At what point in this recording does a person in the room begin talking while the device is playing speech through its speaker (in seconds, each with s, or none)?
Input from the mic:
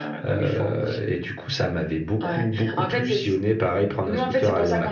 none